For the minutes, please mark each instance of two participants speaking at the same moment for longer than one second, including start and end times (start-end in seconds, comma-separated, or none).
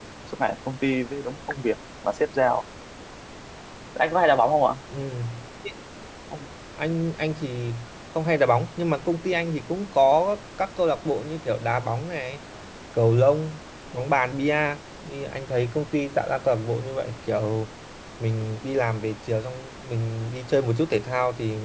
none